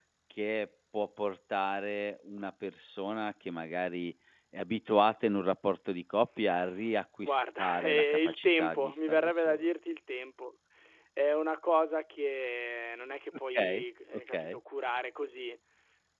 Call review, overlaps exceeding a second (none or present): present